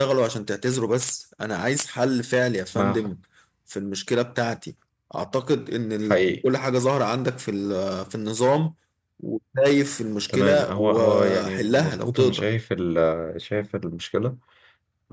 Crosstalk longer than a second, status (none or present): present